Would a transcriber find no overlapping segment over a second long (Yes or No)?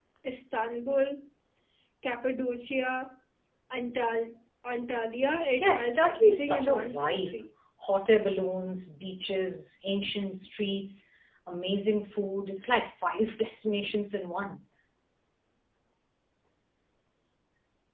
No